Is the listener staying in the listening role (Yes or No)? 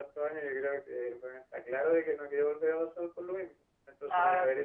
Yes